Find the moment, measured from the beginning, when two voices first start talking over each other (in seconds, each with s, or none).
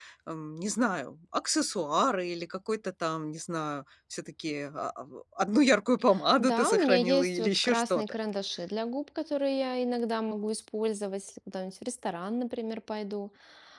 6.4 s